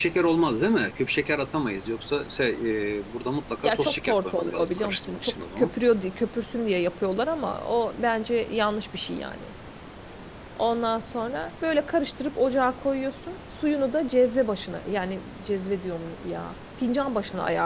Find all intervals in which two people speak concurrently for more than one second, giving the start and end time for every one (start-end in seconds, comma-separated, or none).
3.6-5.7